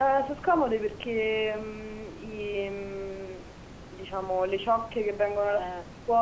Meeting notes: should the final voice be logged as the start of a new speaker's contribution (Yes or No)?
No